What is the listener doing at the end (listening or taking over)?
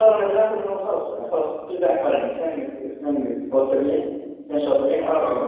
listening